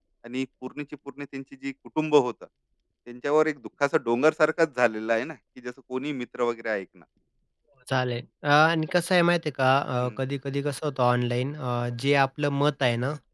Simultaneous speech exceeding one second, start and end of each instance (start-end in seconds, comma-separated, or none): none